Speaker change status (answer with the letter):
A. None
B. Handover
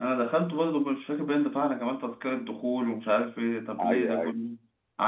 A